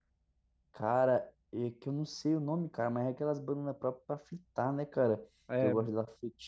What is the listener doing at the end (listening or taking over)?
listening